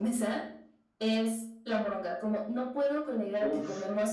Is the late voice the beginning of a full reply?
No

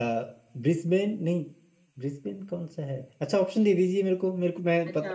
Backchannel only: No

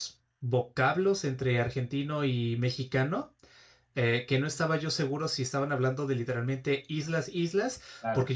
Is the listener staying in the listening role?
Yes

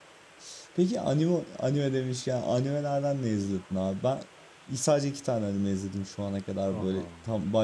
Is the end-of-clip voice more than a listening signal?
No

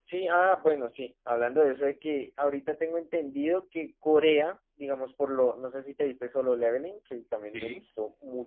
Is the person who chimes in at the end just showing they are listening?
Yes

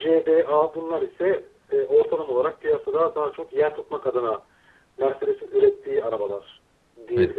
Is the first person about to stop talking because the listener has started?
Yes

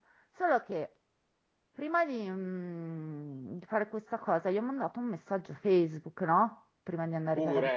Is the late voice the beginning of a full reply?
No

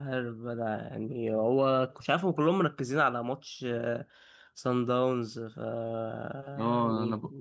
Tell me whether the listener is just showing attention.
No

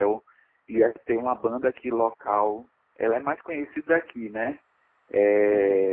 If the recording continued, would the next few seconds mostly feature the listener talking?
No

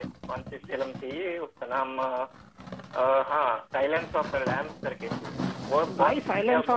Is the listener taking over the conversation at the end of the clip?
Yes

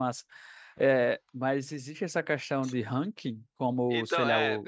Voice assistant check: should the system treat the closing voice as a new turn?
Yes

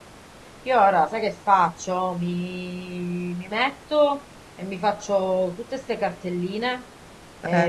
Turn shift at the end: No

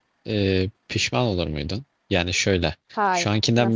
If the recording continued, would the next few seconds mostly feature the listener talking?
No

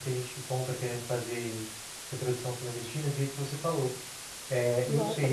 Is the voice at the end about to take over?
Yes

